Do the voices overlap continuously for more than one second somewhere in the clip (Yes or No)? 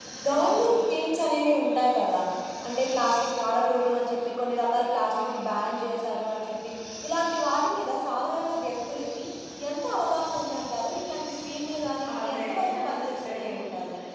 Yes